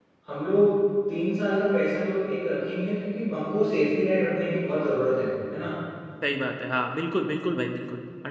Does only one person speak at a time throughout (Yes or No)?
Yes